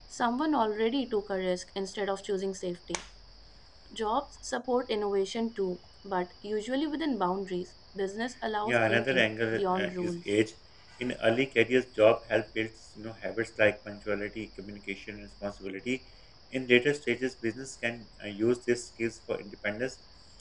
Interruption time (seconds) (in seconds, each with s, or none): 8.6 s